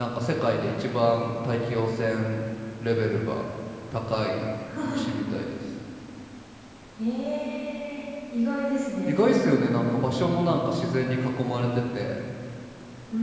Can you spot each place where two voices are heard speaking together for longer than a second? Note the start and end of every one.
none

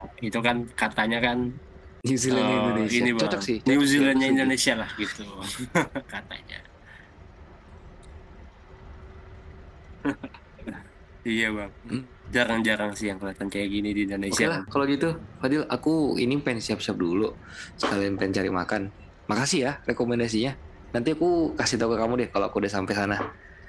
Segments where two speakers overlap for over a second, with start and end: 2.3-4.5

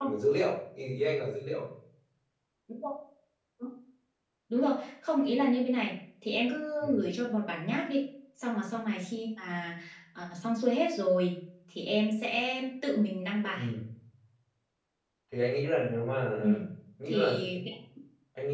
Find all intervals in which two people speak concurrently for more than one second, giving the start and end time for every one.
none

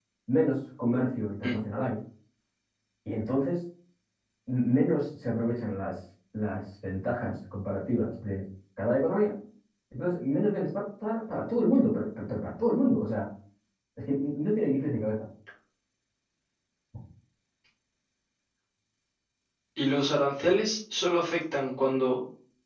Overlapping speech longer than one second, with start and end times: none

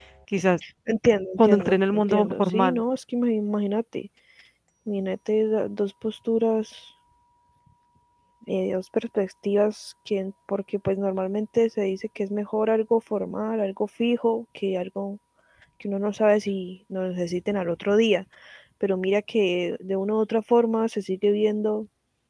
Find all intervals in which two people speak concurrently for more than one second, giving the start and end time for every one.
1.4-2.8

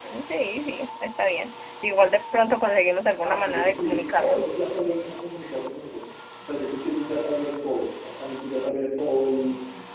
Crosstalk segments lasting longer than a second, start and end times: 3.2-4.5

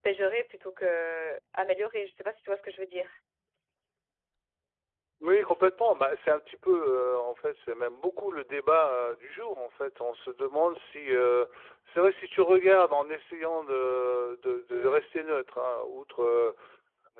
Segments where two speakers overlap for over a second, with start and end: none

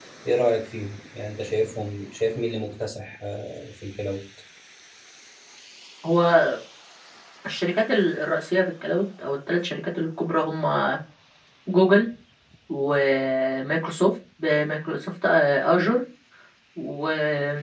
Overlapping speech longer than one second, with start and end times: none

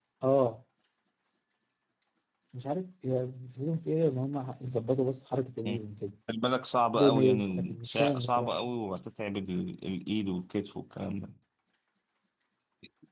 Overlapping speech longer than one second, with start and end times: 6.9-8.6

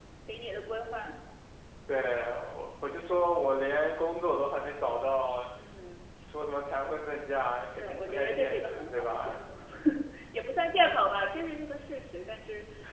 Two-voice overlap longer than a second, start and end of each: 7.8-9.4

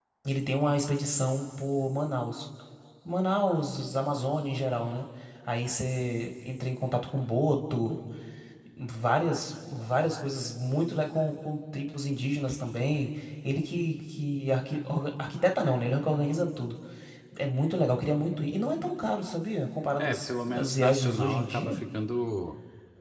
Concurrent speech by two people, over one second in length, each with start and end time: 20.0-21.8

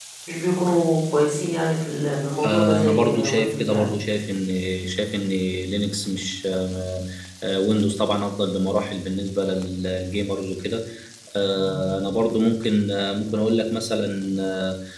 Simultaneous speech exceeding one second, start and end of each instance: 2.4-3.9

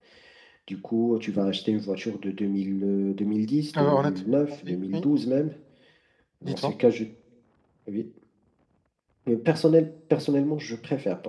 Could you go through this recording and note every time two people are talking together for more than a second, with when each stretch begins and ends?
3.8-5.0

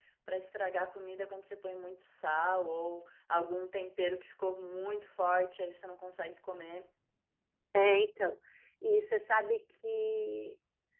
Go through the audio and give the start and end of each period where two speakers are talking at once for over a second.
none

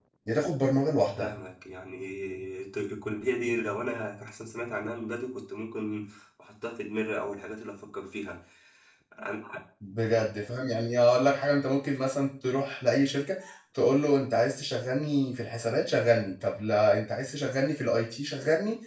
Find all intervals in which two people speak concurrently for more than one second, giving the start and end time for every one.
none

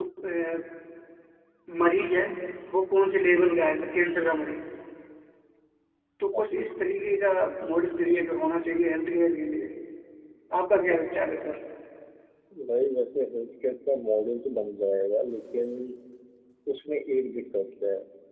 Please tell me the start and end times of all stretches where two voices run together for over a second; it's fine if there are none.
none

